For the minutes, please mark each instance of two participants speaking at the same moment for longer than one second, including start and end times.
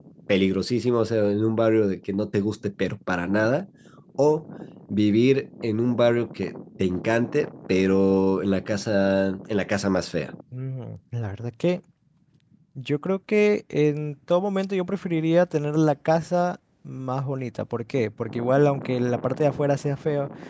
none

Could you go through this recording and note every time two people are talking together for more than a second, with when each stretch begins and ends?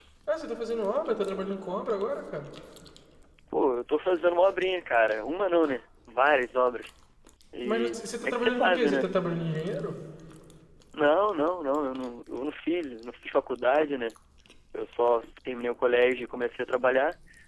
7.6-9.1

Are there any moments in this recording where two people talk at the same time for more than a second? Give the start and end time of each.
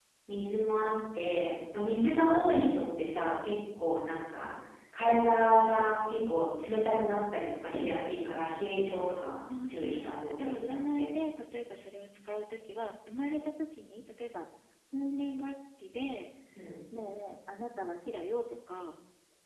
9.7-11.1

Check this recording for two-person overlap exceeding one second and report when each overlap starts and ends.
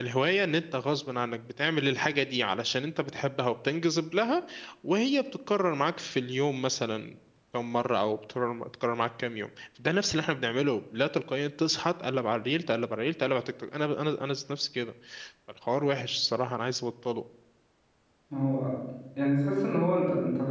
none

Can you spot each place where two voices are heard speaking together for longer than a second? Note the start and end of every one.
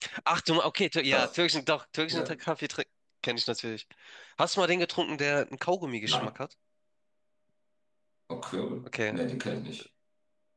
none

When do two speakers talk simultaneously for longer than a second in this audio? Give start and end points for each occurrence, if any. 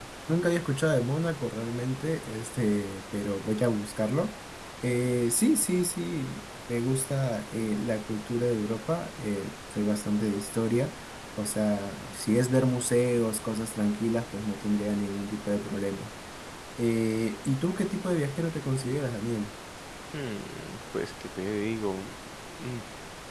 none

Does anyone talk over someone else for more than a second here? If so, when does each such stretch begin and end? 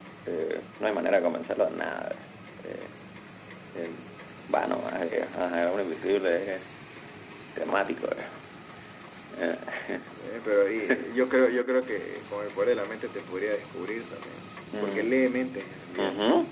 none

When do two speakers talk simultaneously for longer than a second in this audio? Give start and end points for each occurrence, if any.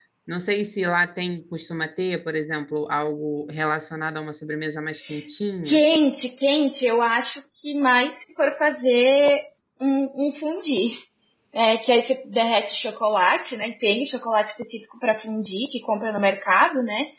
none

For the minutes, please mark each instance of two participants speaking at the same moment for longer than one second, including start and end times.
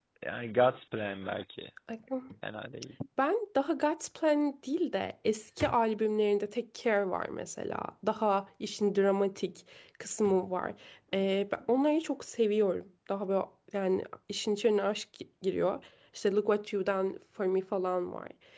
none

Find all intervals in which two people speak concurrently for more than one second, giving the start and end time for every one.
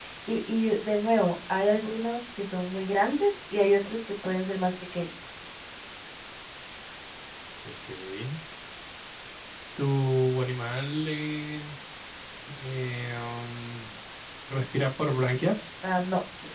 none

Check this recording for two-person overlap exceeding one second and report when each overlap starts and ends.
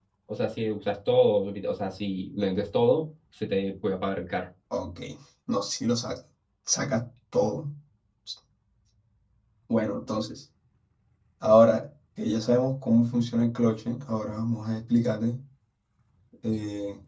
none

